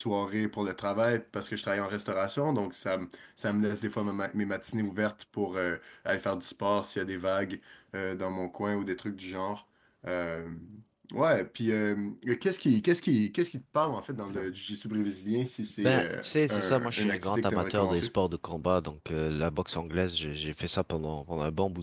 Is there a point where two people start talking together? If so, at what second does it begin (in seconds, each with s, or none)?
15.8 s